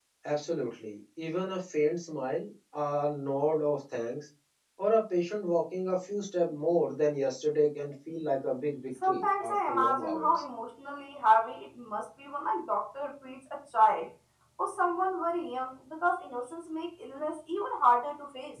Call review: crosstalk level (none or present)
present